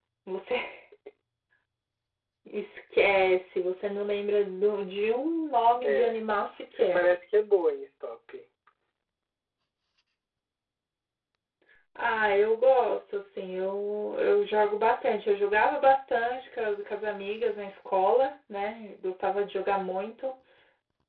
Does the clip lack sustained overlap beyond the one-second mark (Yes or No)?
Yes